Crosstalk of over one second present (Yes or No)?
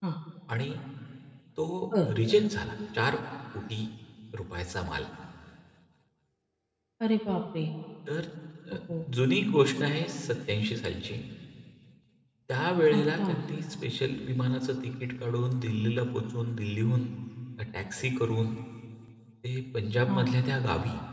No